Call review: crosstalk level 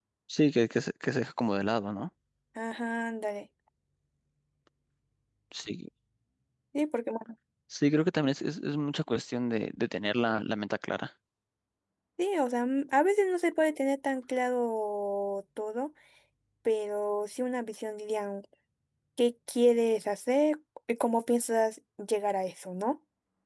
none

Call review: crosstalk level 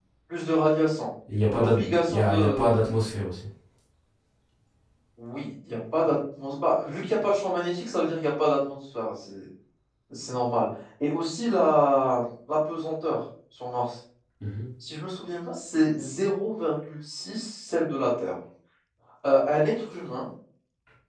present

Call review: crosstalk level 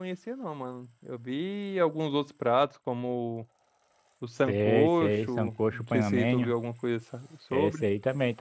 present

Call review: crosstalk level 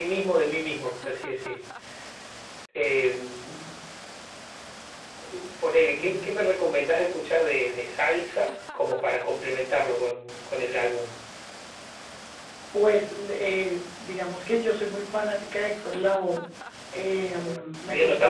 present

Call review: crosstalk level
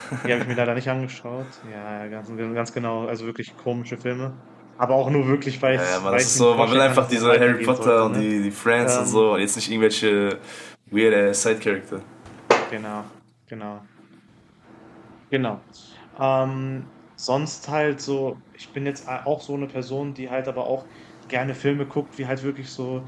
present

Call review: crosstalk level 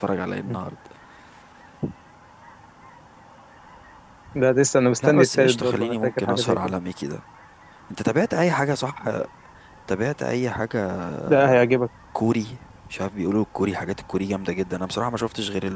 present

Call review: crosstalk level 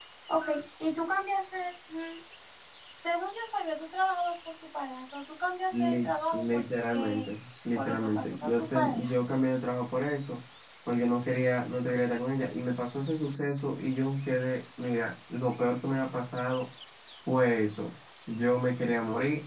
present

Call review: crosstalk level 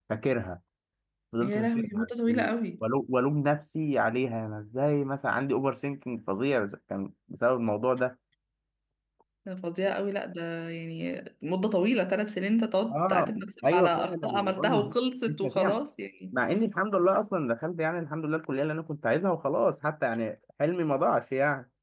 present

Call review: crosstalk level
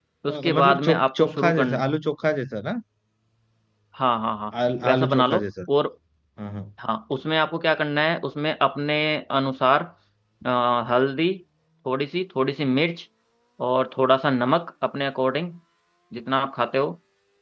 present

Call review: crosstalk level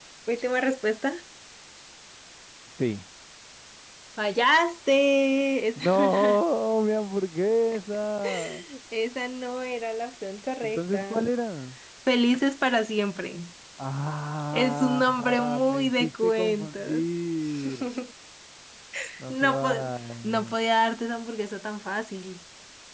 present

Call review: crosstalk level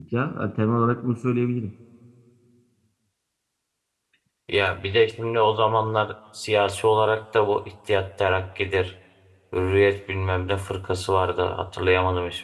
none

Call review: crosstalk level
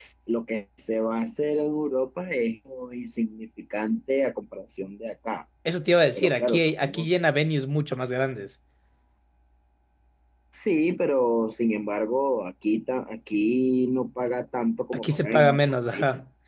present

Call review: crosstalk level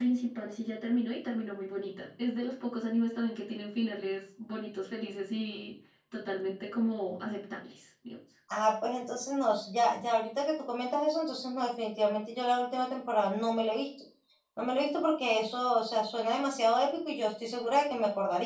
none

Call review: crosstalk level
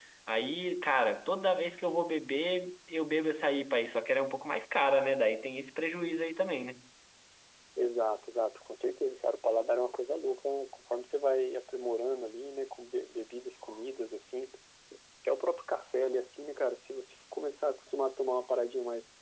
none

